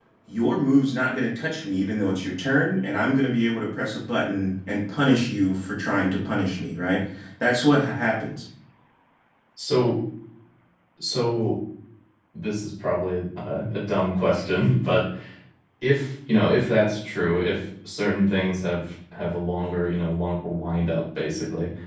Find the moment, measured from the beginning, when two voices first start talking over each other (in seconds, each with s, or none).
none